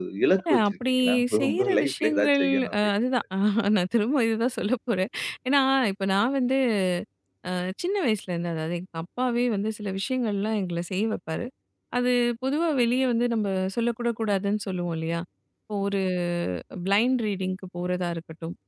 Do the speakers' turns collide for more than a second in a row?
Yes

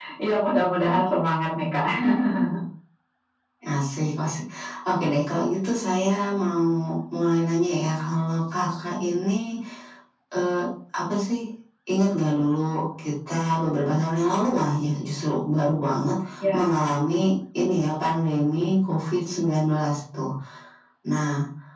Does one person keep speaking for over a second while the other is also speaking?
No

